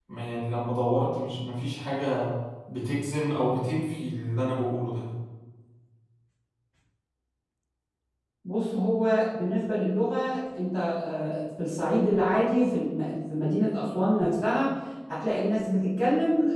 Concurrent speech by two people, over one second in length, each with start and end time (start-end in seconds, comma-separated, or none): none